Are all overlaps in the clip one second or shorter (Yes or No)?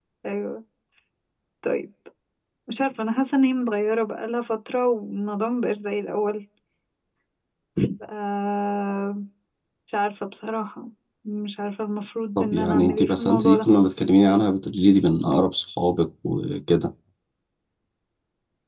No